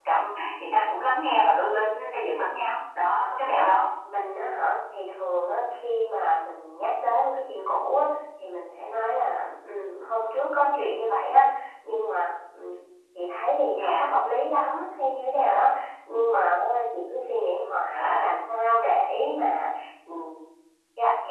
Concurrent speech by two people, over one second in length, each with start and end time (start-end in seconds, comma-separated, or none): none